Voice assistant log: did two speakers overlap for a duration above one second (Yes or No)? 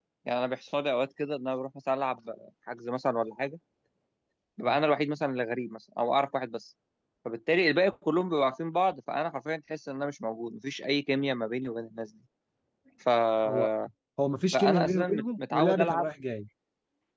Yes